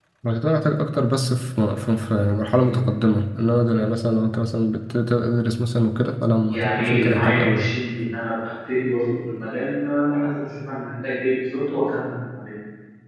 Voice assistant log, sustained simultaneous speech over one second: present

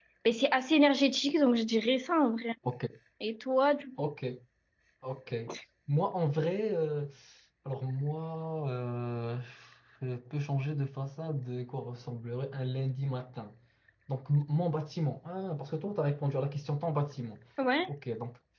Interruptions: none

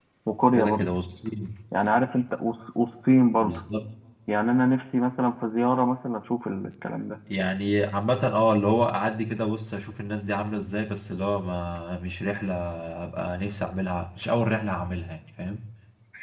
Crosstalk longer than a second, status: none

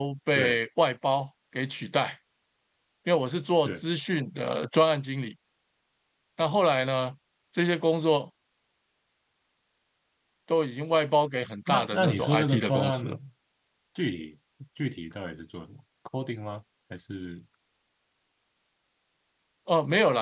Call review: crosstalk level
present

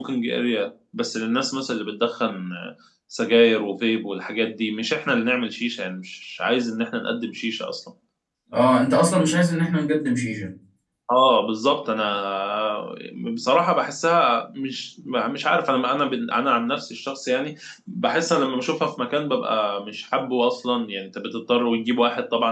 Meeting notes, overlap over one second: none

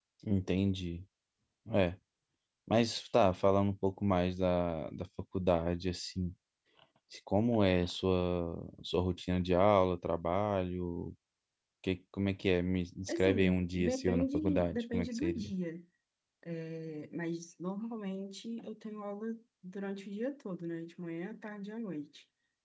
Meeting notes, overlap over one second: present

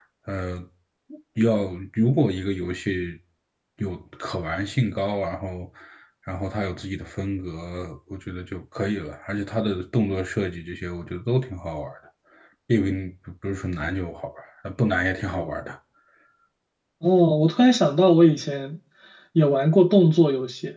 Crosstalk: none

